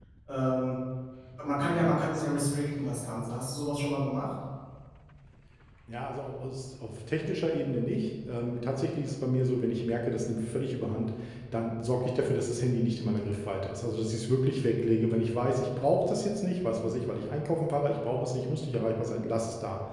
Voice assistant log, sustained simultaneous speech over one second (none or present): none